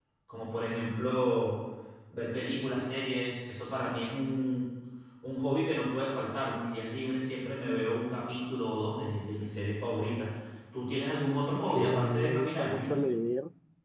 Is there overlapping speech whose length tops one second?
Yes, from 11.5 s

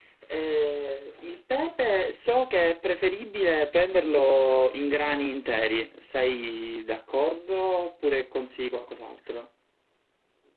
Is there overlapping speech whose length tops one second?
No

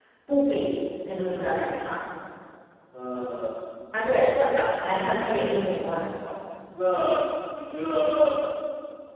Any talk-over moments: No

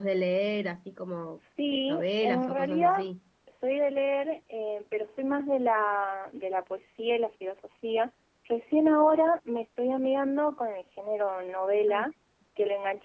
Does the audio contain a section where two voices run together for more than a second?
Yes, from 1.9 s

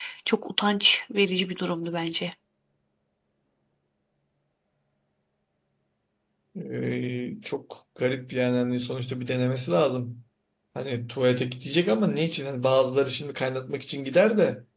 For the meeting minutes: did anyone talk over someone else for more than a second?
No

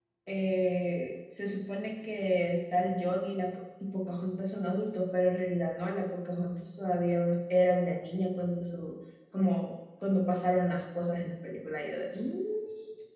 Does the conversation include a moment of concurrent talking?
No

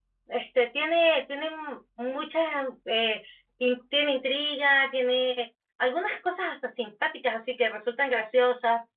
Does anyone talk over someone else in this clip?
No

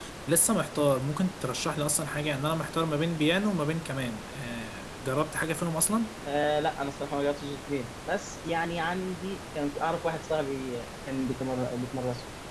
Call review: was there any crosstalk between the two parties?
No

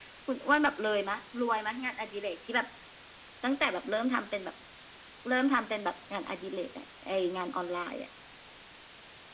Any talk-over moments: No

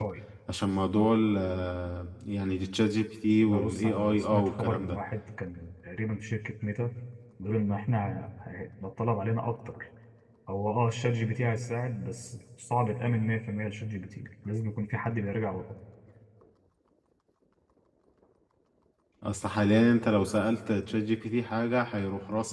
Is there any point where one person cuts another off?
Yes, from 3.4 s

